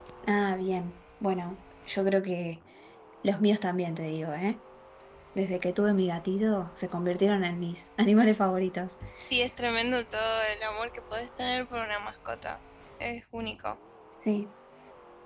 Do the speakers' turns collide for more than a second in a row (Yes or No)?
No